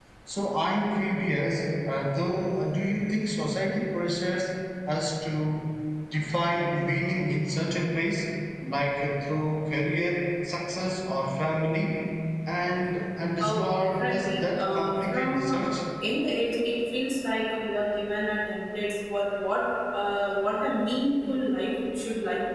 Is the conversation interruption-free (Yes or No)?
No